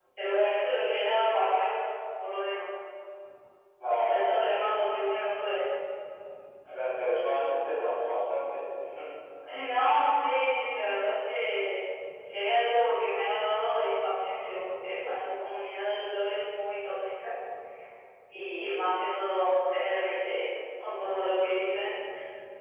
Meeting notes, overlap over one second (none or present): none